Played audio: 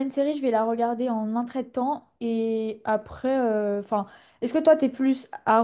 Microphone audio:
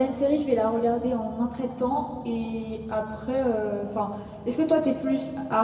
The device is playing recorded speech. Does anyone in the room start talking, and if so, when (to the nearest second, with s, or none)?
none